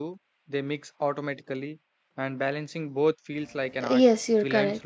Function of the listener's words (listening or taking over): taking over